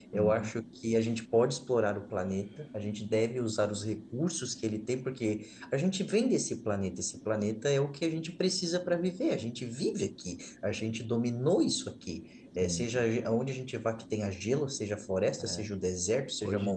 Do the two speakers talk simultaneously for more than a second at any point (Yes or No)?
No